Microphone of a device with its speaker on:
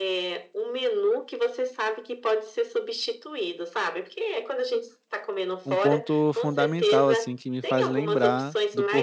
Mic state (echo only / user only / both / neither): both